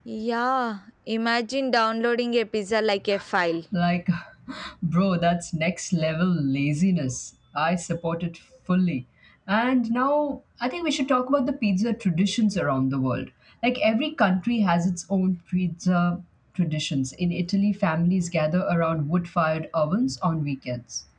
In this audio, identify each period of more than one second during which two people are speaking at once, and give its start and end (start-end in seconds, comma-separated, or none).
none